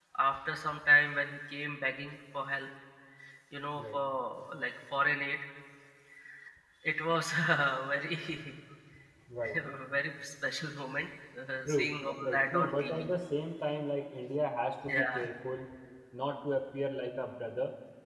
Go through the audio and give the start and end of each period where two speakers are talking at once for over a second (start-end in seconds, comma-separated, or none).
11.7-13.1